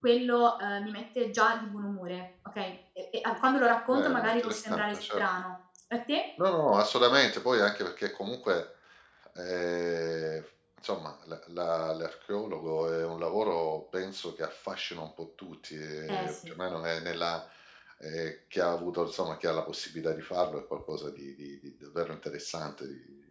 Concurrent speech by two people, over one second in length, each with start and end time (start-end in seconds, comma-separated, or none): 3.9-5.2